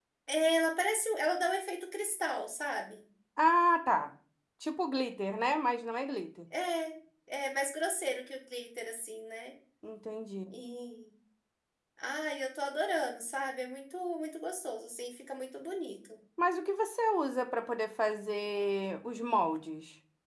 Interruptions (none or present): none